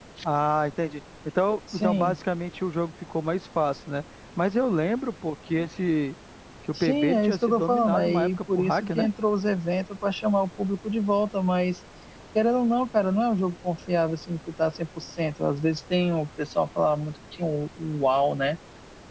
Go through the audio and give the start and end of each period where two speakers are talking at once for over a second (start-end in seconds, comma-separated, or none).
6.7-9.1